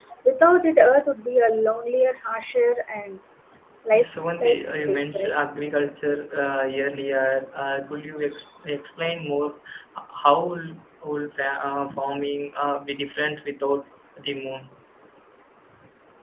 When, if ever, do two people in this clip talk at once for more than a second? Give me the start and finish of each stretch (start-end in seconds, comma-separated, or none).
3.9-5.4